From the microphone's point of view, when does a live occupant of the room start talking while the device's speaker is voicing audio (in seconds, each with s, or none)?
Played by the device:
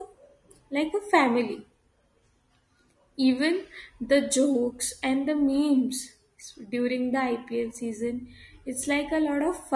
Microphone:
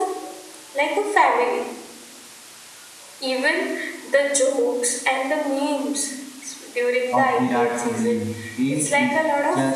7.1 s